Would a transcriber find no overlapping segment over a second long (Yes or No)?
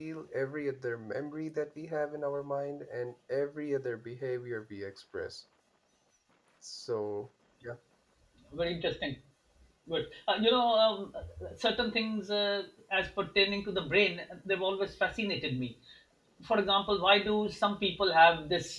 Yes